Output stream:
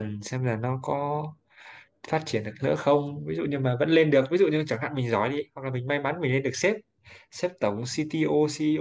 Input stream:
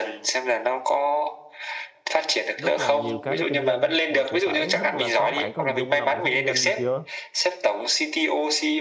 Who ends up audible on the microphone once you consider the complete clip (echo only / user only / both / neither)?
both